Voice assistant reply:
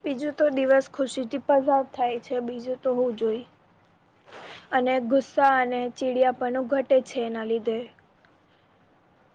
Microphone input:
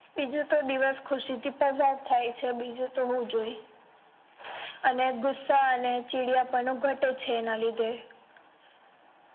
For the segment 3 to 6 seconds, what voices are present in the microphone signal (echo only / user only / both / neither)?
echo only